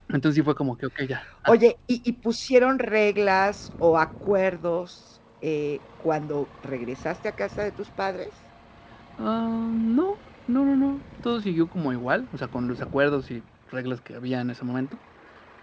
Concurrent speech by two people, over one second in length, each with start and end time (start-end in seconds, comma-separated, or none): none